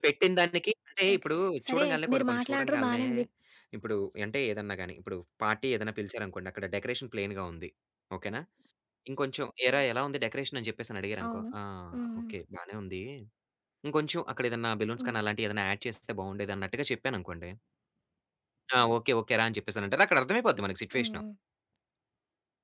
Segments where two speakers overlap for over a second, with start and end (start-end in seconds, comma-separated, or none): 1.7-3.0